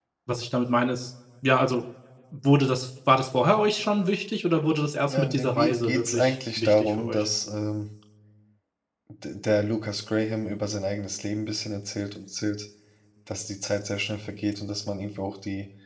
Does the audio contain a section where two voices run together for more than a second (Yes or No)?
Yes